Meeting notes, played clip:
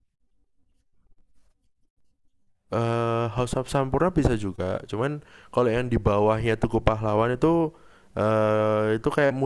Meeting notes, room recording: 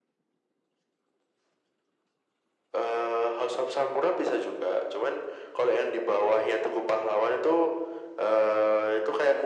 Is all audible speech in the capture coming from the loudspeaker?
Yes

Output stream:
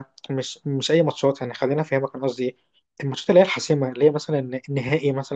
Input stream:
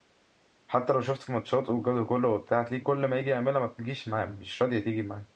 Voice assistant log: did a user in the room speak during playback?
Yes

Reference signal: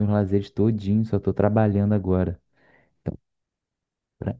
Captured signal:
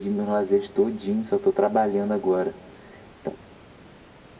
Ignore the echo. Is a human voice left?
No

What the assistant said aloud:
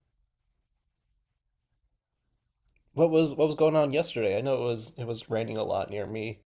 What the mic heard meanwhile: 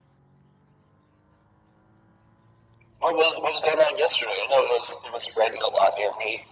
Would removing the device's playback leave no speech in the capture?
Yes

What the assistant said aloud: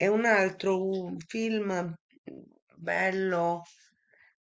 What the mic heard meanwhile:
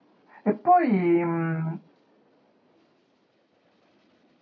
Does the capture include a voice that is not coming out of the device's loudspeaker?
Yes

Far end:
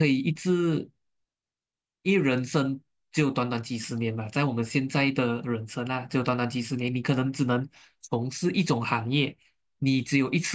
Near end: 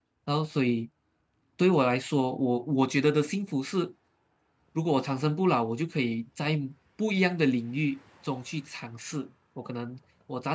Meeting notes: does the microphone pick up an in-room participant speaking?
Yes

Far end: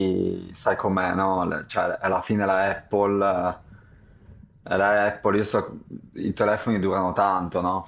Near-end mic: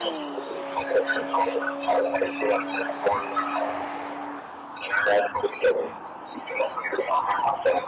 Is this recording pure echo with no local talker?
Yes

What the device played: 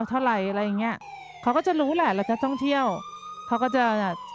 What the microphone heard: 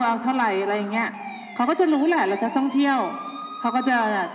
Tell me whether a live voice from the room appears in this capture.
No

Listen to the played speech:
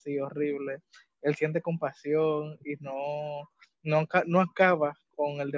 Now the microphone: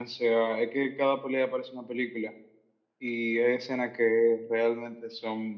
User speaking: Yes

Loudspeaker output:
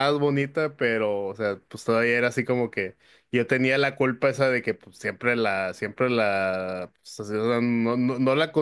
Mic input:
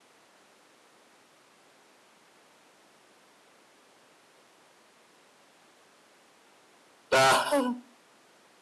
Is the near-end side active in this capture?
Yes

